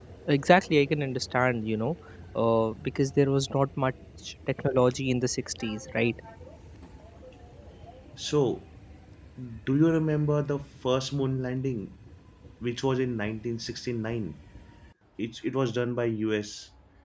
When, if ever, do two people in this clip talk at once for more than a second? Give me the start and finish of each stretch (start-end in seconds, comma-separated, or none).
none